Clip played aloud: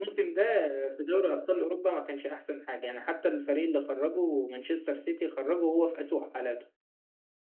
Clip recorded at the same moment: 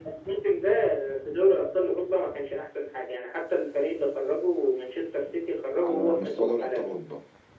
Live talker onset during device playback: 6 s

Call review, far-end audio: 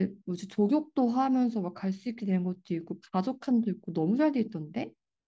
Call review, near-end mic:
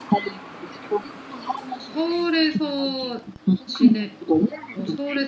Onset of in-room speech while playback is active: 2 s

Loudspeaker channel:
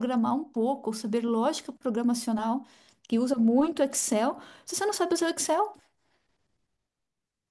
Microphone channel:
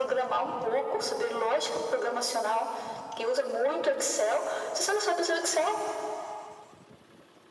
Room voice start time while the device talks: none

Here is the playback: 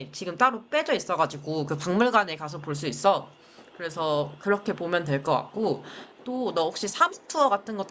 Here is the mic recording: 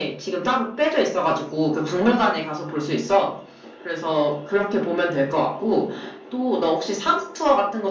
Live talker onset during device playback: none

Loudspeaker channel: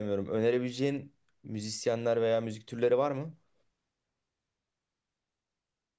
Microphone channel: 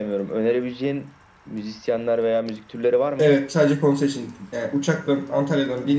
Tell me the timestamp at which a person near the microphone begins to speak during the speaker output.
3 s

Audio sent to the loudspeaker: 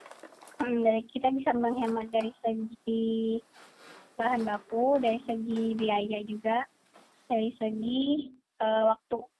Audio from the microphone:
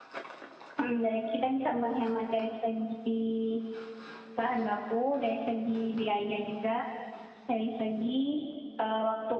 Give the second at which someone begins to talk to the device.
none

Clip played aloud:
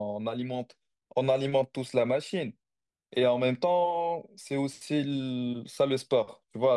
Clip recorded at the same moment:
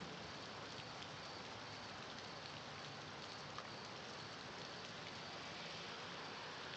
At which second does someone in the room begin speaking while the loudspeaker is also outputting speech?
none

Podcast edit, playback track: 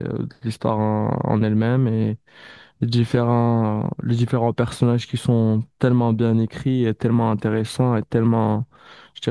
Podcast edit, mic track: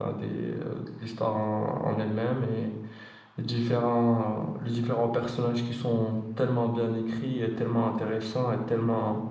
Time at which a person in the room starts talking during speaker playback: none

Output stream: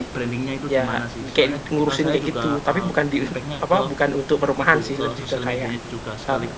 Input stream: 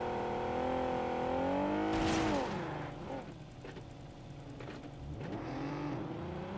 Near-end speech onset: none

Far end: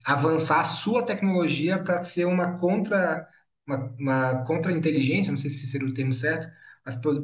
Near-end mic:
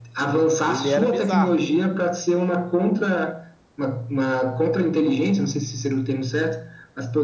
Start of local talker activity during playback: 1 s

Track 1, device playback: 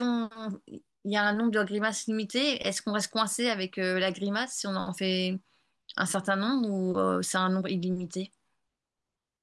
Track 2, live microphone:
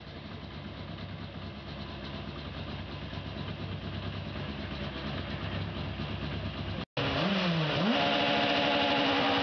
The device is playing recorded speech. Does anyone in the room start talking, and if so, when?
none

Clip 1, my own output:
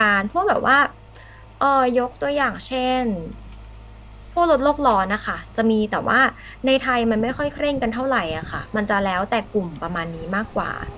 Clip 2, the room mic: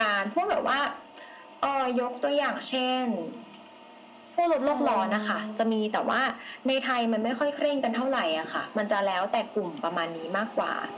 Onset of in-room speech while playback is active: 5 s

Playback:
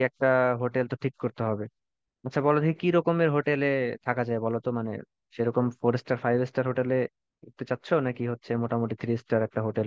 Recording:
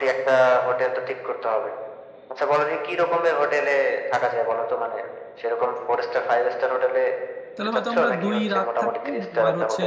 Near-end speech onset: 8 s

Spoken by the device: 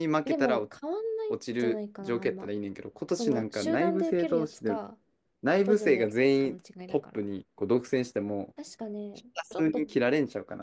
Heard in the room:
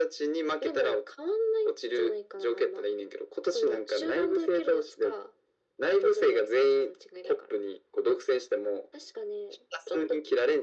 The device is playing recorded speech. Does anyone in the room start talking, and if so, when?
none

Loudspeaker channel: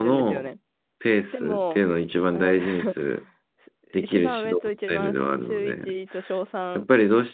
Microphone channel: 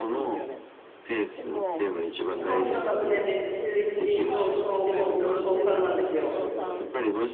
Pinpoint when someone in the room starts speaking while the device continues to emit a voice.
2 s

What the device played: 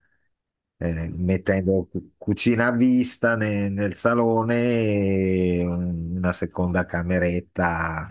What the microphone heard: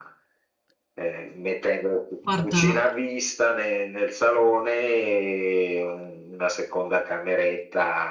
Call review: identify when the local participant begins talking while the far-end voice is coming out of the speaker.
2 s

